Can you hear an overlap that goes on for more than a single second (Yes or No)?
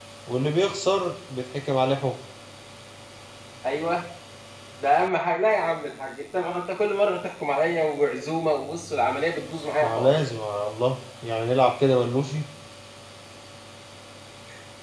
No